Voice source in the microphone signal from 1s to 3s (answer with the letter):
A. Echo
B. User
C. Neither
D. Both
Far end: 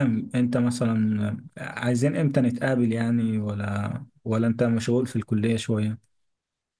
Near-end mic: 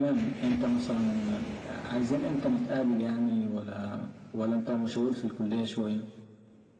A